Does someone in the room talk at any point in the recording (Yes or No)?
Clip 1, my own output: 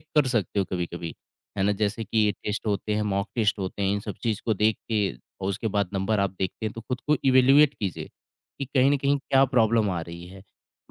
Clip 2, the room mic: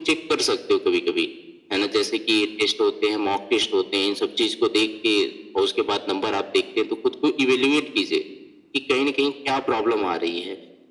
No